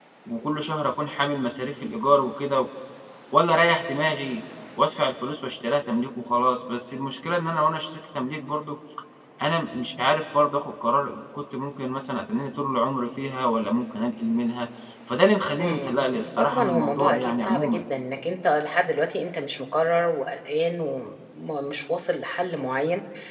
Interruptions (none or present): present